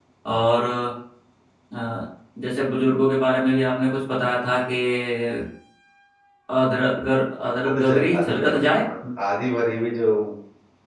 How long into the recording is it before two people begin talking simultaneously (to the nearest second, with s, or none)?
8 s